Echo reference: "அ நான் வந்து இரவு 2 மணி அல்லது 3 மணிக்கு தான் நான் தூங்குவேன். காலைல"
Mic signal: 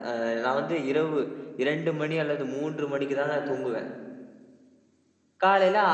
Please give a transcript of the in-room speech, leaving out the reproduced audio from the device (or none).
none